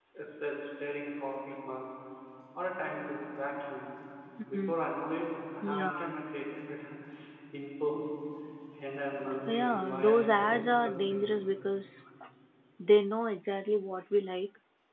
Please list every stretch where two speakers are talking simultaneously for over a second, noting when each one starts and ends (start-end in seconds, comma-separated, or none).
9.5-11.3